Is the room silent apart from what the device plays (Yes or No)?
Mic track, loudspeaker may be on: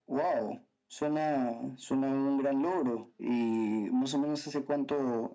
Yes